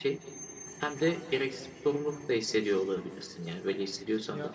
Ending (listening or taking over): taking over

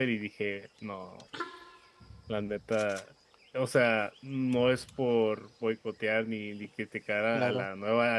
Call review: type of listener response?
listening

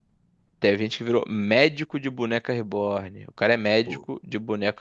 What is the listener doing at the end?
listening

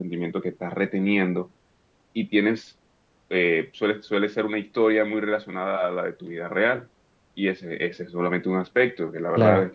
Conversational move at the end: taking over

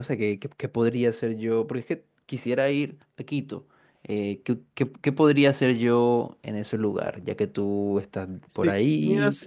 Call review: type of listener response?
taking over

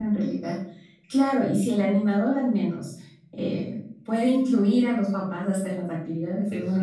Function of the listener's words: listening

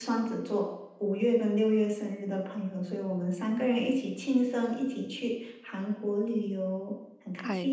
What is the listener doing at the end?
taking over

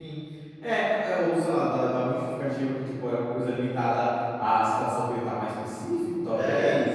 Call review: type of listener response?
taking over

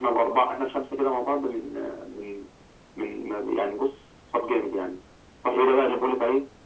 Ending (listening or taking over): listening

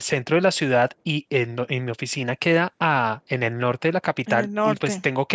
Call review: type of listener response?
listening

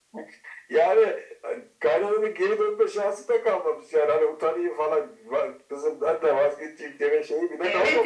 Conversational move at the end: taking over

